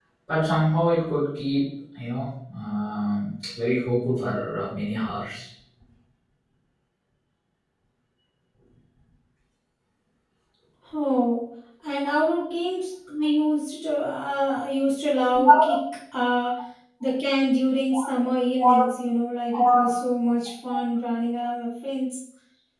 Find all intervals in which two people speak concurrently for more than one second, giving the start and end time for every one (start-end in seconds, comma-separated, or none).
none